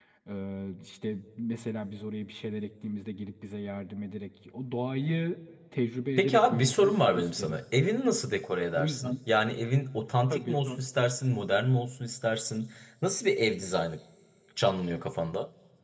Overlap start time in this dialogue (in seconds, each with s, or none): 6.2 s